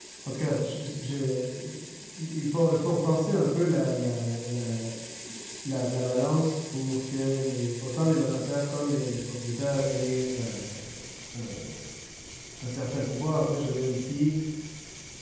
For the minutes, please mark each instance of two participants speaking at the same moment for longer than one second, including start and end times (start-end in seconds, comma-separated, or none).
none